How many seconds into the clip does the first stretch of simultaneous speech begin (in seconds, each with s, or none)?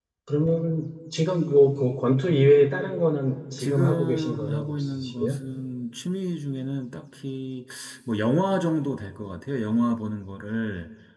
3.6 s